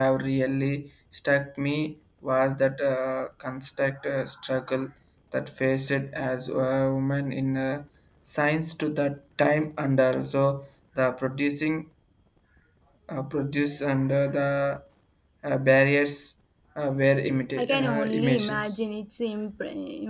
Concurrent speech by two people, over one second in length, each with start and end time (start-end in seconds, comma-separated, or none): 17.6-18.8